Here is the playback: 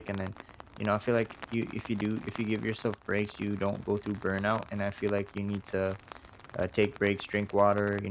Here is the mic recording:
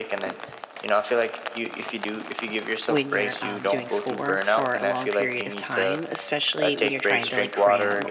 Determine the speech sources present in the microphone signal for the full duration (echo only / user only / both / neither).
both